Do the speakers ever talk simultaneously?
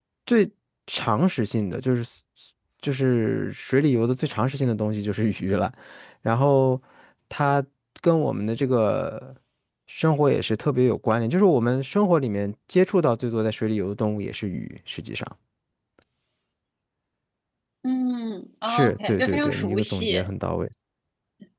Yes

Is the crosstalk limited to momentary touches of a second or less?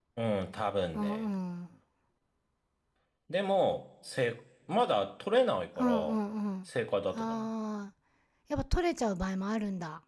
Yes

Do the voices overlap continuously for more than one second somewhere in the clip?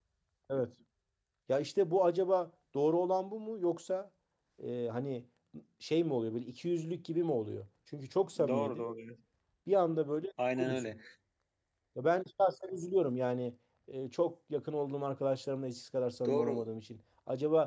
No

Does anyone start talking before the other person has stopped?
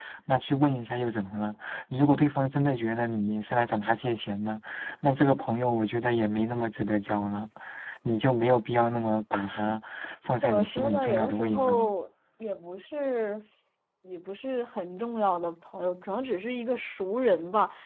Yes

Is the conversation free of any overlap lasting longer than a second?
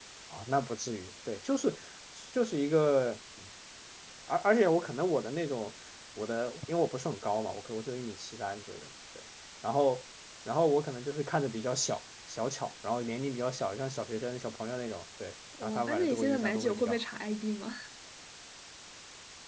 No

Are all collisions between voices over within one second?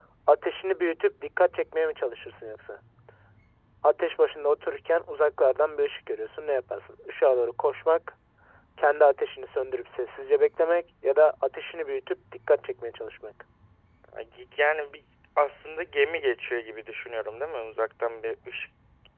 Yes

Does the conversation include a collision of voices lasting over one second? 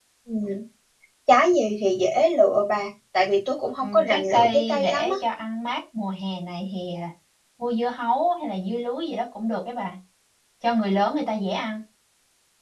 Yes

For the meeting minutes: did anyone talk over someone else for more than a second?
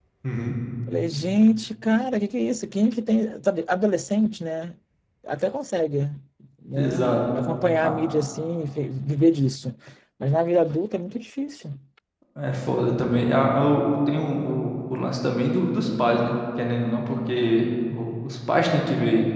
No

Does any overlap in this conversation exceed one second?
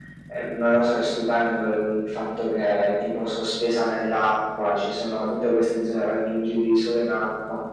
No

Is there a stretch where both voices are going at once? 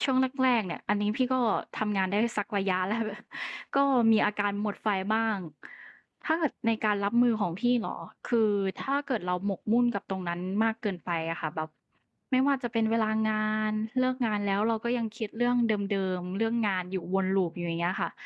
No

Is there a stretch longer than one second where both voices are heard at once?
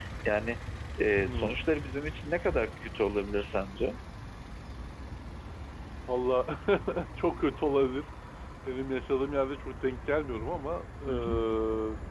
No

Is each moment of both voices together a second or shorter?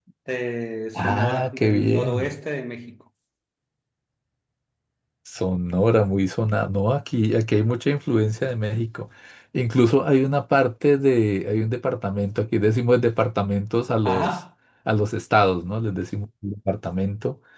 No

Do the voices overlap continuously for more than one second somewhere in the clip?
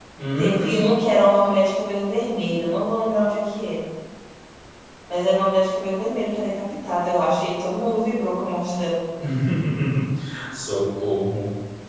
No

